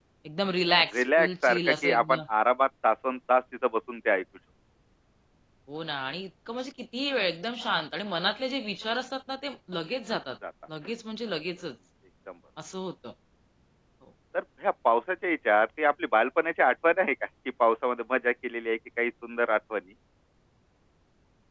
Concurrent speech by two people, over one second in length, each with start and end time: 0.9-2.2

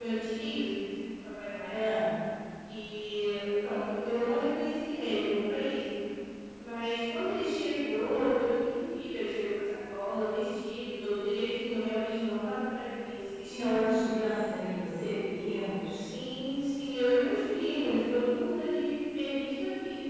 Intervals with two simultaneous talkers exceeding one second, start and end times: none

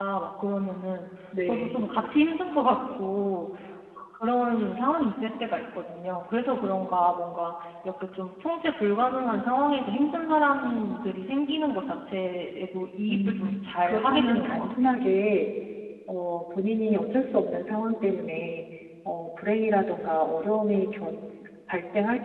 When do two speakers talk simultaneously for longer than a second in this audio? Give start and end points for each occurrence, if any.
13.1-14.9

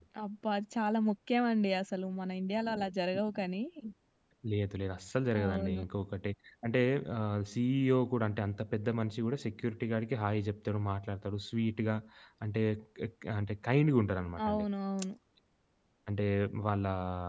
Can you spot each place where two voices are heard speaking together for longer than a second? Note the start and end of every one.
none

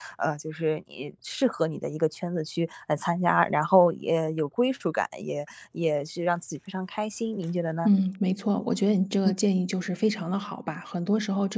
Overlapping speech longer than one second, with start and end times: none

